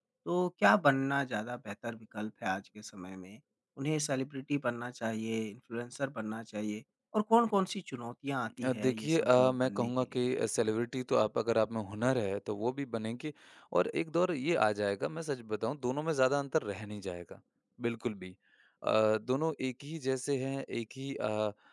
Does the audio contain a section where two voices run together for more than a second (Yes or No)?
Yes